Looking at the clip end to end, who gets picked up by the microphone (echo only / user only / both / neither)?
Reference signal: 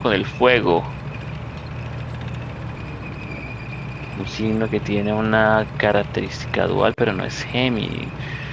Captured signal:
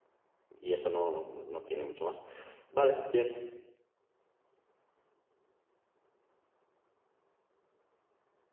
user only